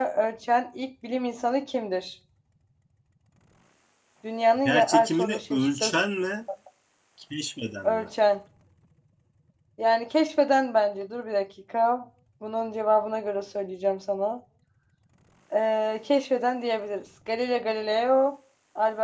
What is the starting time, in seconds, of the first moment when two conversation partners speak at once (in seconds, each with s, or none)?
4.7 s